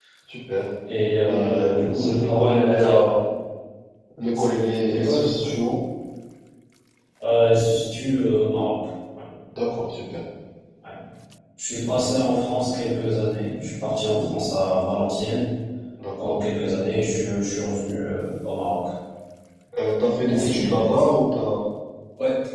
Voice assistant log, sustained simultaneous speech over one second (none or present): present